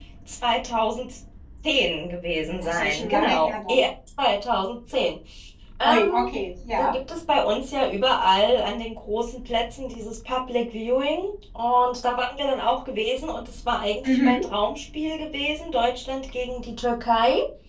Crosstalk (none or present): present